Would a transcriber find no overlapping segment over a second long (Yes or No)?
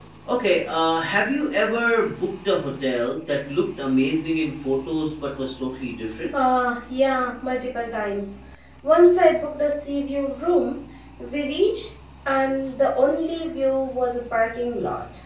Yes